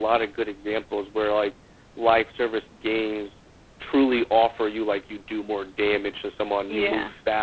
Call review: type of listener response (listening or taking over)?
listening